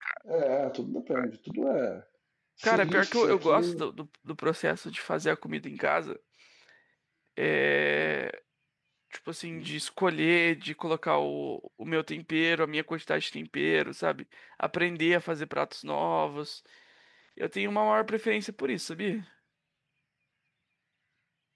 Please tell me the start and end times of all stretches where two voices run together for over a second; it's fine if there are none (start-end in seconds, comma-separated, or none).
2.6-3.8